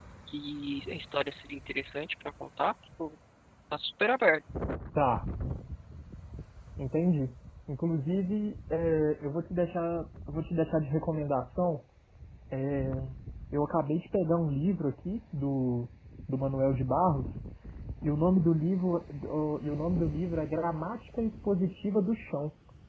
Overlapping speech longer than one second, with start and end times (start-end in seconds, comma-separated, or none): none